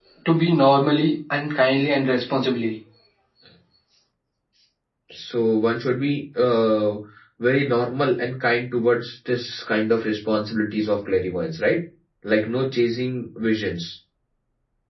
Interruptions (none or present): none